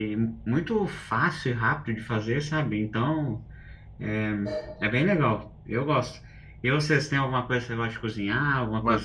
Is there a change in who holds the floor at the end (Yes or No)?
Yes